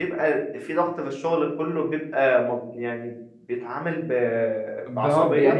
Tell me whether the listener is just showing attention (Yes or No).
No